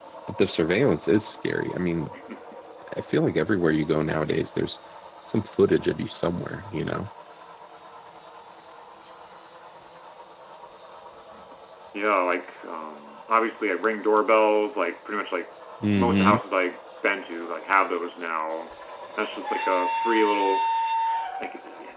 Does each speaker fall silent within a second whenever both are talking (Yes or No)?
Yes